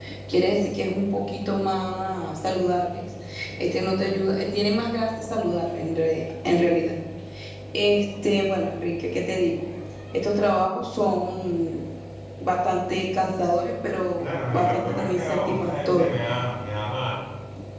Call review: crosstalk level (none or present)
present